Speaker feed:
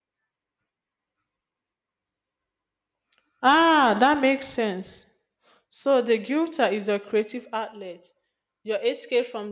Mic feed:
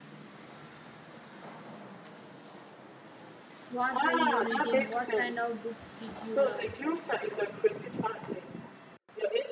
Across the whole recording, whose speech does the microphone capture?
both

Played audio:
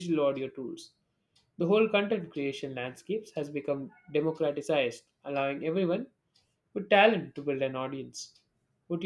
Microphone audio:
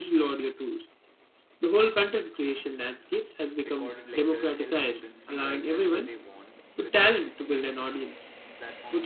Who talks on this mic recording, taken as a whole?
both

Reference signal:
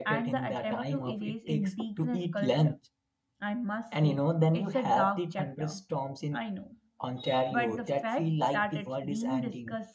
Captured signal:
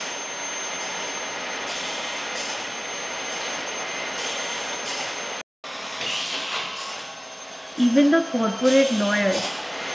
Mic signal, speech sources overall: user only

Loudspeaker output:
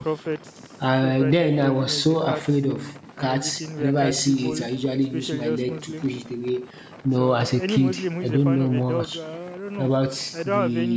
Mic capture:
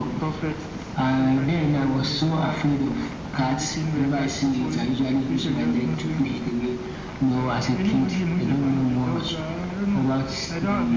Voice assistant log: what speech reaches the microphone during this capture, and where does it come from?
echo only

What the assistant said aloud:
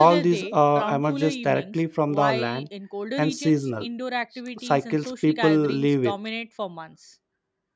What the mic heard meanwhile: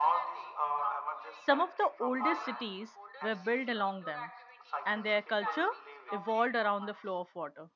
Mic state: both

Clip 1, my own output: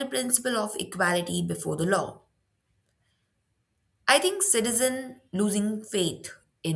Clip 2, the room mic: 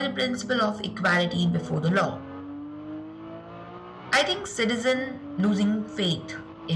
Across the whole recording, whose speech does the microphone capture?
echo only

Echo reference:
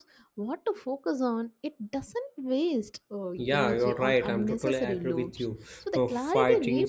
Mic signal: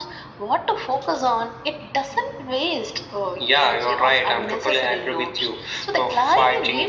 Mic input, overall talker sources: echo only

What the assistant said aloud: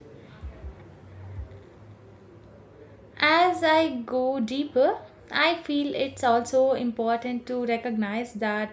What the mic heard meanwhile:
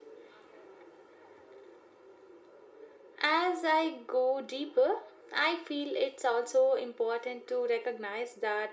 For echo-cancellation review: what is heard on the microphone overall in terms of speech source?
echo only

